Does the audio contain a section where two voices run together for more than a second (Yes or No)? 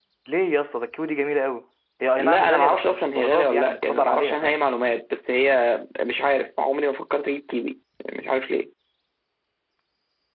Yes